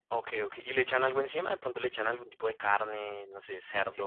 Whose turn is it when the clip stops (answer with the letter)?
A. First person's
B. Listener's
B